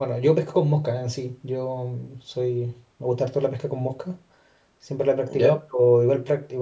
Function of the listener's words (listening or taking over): listening